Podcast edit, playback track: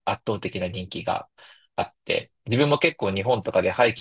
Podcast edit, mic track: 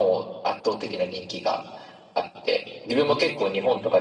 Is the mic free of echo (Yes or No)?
No